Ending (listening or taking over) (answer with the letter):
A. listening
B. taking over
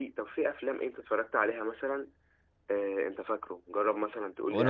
B